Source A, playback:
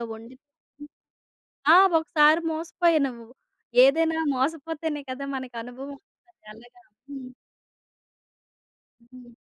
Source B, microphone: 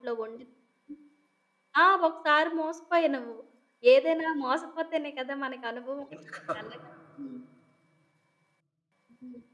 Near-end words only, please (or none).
ఉంచుకో